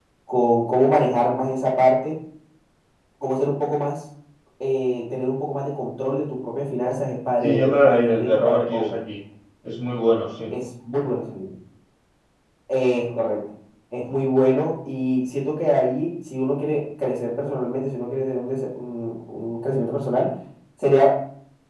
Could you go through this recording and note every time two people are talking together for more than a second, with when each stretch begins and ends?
7.4-9.0

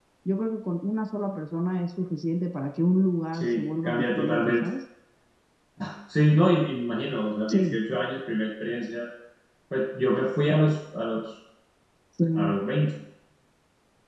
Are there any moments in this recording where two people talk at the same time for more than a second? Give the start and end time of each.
3.3-4.7

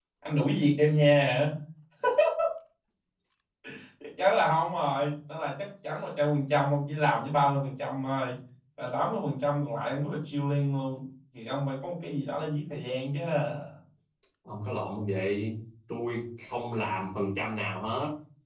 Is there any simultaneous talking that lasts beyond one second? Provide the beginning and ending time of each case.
none

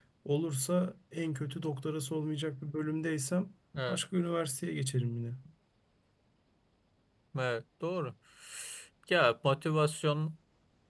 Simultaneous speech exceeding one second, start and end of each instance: none

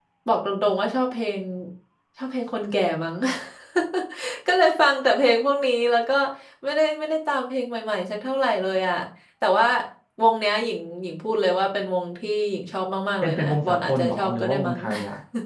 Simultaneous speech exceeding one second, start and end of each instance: 13.2-14.8

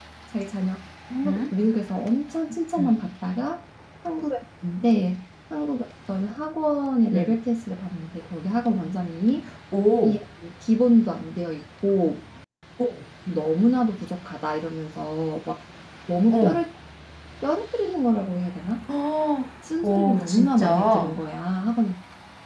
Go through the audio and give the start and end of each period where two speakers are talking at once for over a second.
19.8-21.1

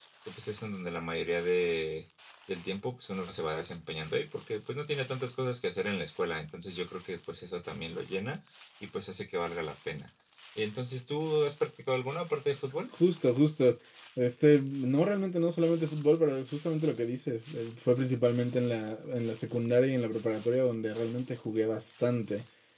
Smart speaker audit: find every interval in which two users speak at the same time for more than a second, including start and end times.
none

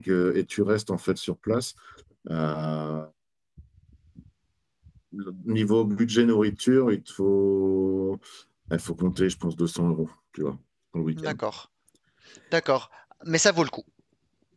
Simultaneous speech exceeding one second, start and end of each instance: none

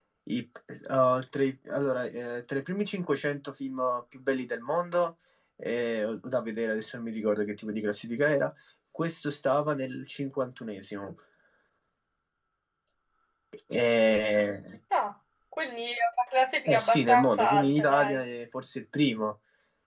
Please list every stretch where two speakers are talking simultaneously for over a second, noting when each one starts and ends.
16.7-18.2

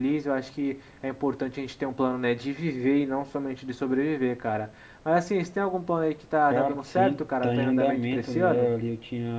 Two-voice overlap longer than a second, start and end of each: 6.5-8.7

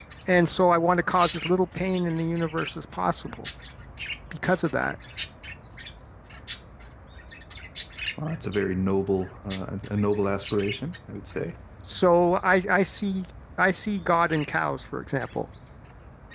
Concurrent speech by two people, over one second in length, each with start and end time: none

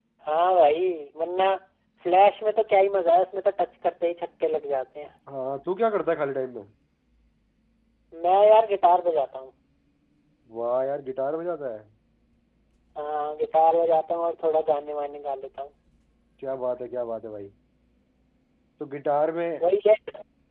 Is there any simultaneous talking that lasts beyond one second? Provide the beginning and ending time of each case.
none

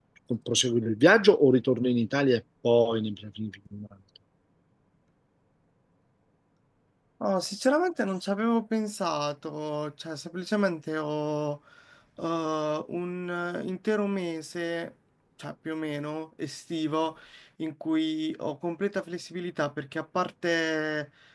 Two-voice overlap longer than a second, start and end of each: none

